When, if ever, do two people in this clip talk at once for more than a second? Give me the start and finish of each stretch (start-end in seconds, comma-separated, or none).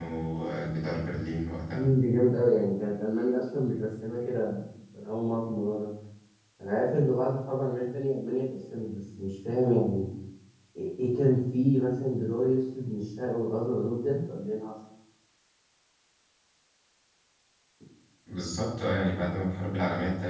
none